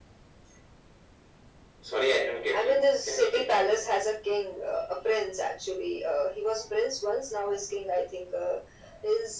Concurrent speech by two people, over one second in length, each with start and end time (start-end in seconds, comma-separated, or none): 2.5-4.0